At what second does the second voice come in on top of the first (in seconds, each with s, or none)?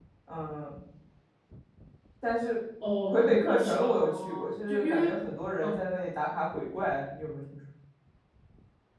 3.1 s